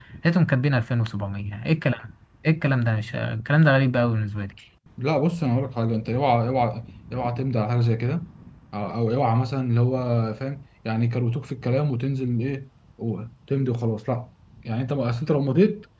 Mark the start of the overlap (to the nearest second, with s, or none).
none